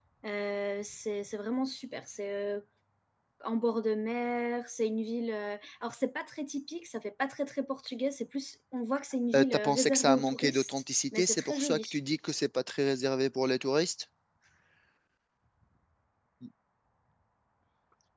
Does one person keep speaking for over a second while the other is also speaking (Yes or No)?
Yes